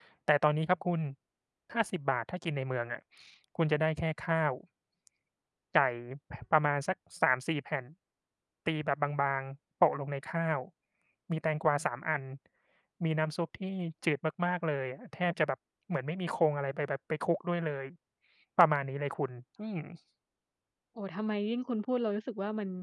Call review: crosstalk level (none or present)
none